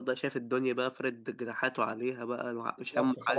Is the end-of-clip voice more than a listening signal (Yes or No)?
Yes